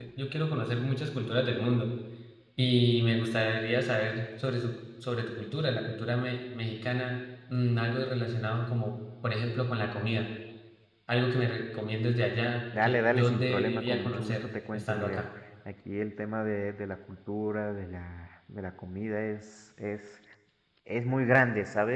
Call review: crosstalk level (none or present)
present